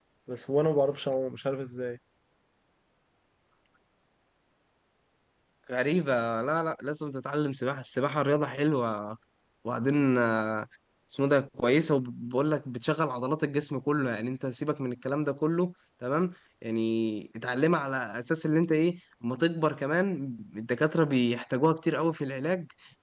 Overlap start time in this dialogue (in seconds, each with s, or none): none